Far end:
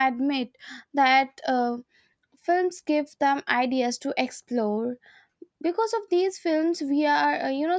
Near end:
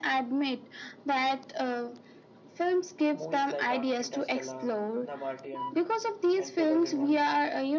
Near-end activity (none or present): present